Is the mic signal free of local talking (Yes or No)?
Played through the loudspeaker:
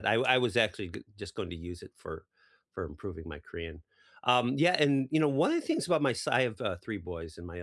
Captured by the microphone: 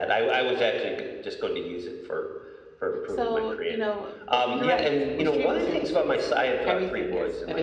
No